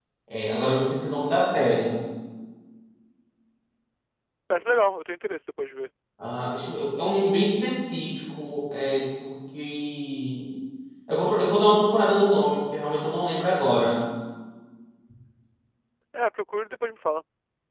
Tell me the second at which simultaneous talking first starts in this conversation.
none

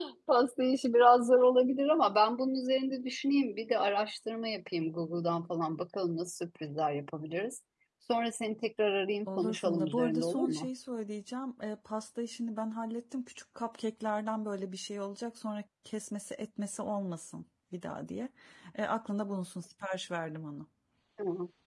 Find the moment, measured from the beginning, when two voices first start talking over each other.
9.3 s

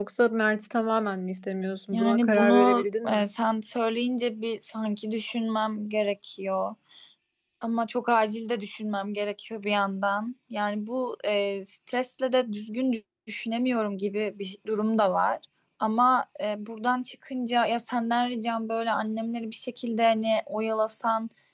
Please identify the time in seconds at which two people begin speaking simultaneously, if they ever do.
1.9 s

